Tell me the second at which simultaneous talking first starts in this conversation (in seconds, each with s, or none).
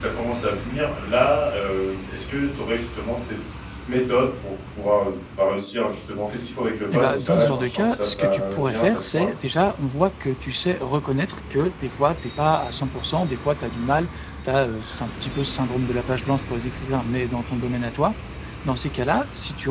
6.9 s